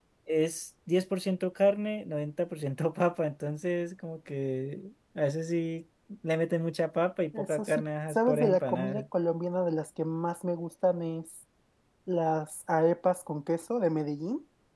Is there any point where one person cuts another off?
Yes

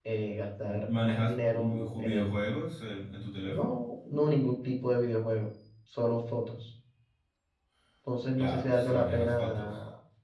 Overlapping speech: Yes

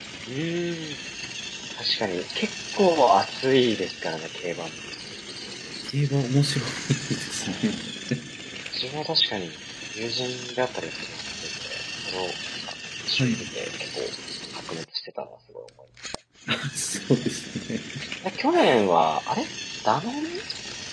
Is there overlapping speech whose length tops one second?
No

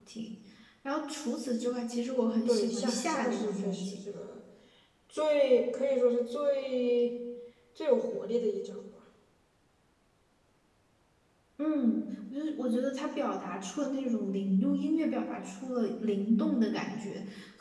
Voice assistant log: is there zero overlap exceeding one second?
No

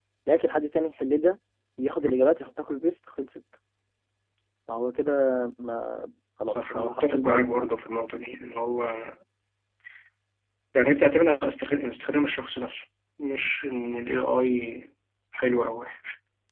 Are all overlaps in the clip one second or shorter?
No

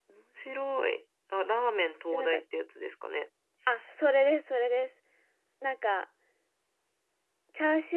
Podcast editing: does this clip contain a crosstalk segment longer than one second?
No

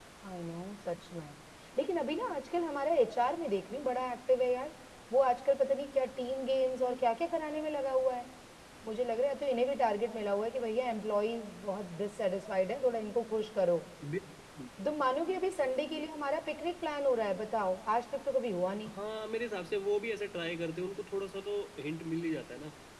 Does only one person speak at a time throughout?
Yes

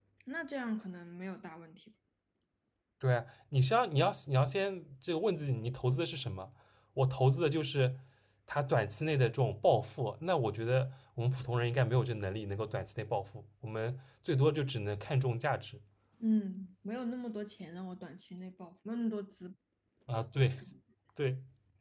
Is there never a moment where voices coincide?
Yes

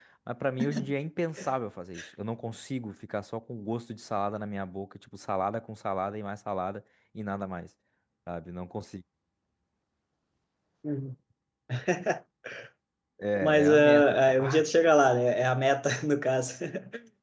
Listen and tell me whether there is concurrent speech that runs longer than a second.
Yes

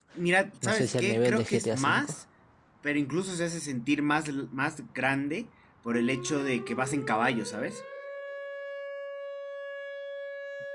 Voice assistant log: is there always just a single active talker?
No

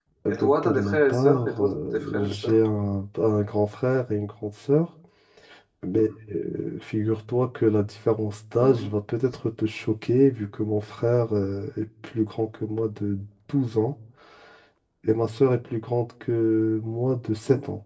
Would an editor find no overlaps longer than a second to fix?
No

